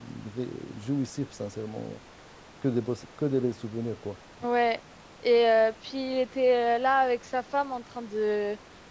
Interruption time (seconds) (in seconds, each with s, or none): none